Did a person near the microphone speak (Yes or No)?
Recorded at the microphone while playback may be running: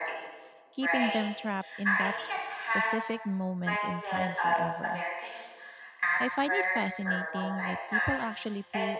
Yes